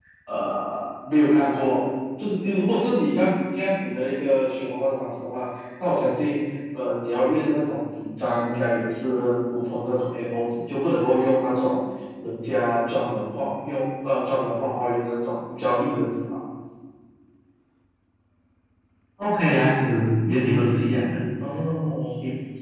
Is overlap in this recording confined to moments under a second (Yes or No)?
Yes